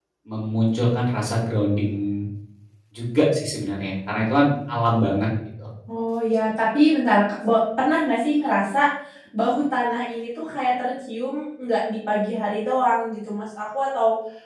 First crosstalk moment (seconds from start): none

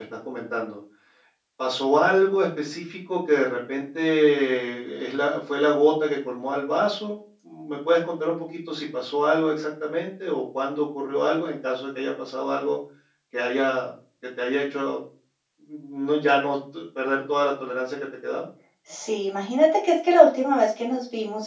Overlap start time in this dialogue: none

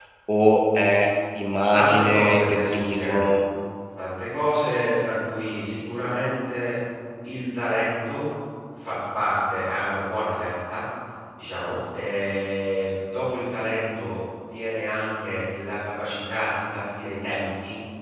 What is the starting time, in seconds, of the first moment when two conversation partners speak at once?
1.7 s

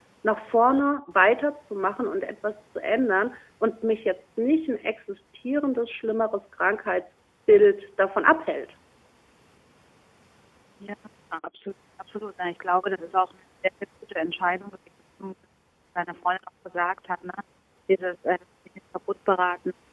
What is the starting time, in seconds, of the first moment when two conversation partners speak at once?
none

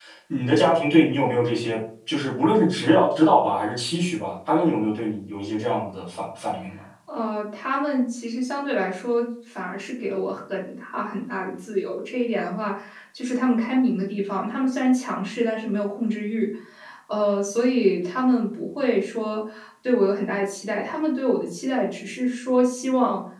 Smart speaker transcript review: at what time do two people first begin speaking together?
none

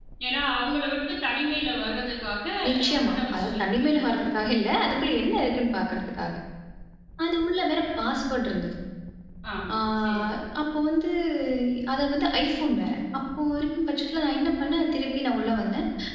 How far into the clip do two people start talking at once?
2.9 s

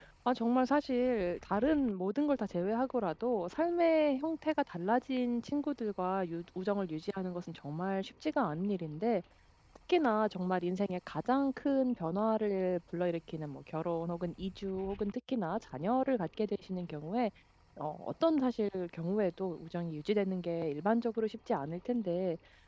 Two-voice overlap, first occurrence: none

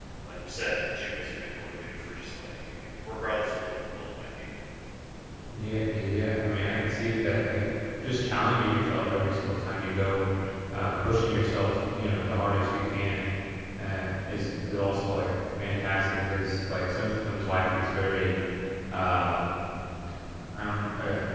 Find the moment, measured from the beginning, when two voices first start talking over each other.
none

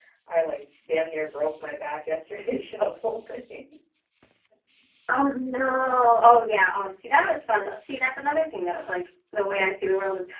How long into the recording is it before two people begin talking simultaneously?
none

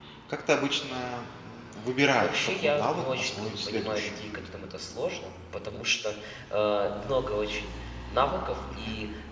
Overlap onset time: 2.2 s

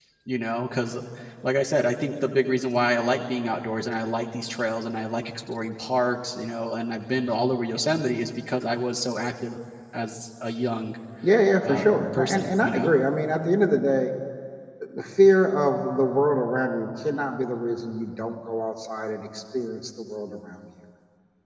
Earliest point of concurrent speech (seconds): 11.6 s

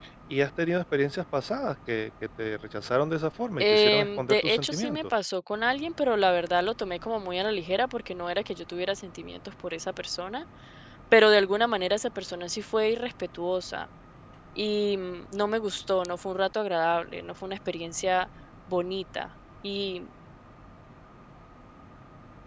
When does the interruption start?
3.6 s

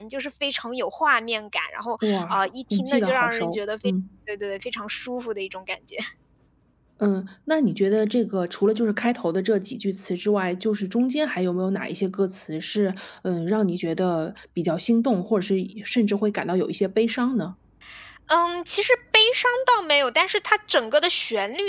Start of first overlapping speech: 2.0 s

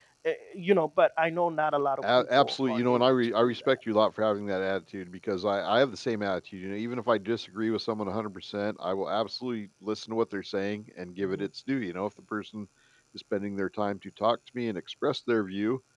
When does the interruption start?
2.0 s

